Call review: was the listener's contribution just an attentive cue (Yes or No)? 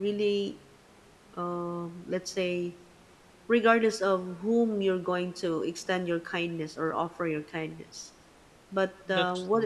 Yes